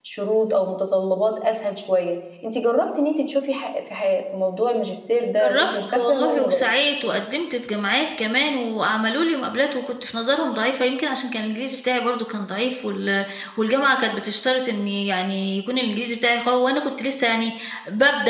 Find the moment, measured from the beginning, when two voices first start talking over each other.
5.4 s

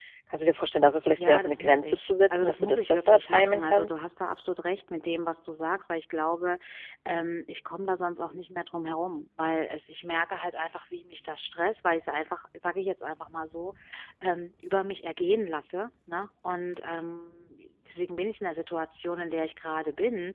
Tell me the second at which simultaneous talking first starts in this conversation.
1.1 s

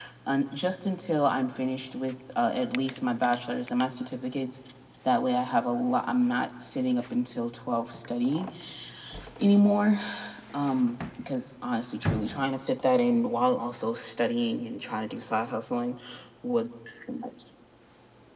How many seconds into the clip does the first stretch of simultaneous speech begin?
none

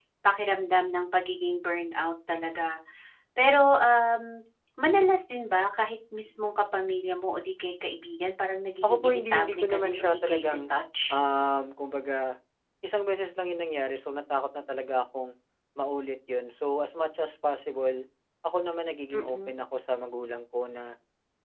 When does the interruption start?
8.8 s

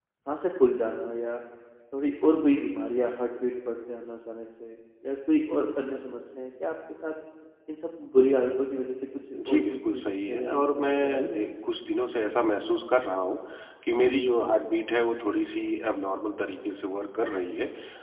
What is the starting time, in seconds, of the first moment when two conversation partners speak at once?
9.4 s

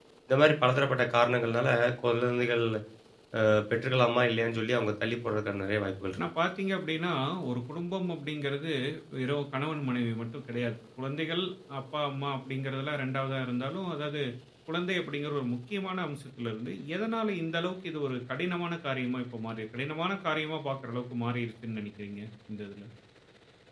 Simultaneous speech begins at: none

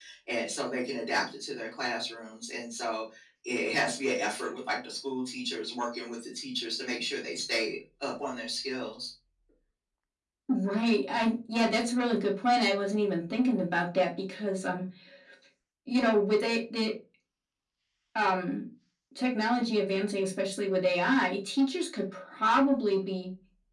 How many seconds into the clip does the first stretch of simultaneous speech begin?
none

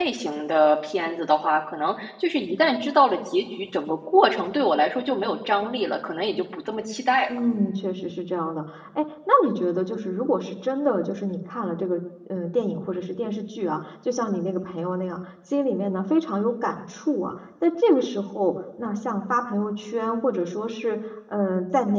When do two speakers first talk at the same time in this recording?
none

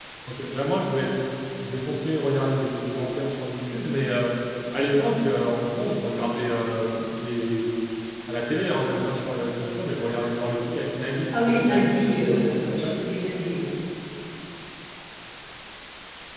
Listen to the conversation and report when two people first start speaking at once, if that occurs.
11.3 s

